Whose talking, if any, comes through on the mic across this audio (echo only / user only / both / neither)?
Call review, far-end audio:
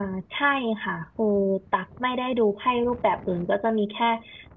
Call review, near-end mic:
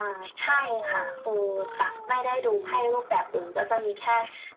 echo only